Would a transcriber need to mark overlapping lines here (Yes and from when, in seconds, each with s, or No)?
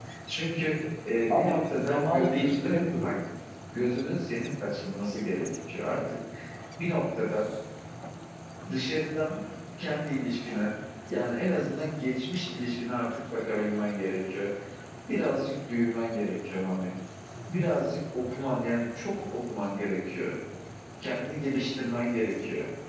Yes, from 1.3 s